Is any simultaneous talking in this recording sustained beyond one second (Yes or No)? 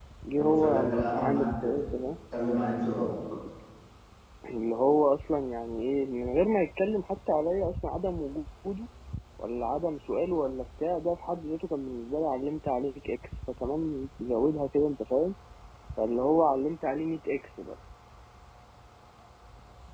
Yes